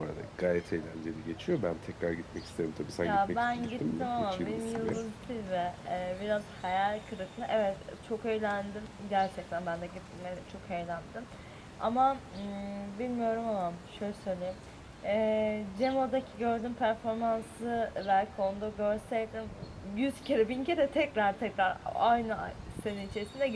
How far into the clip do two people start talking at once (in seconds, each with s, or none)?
3.0 s